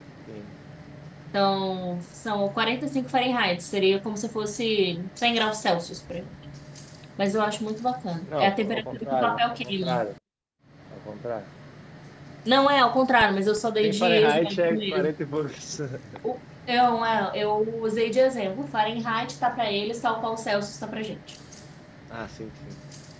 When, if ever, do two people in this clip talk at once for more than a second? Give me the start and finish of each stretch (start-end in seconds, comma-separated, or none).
8.2-10.0, 13.8-15.1